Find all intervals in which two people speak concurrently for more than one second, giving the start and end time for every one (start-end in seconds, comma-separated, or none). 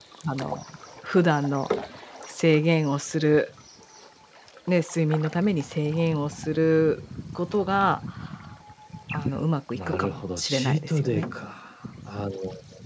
9.7-11.2